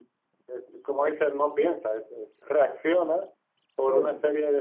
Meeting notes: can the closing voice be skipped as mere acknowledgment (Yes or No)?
Yes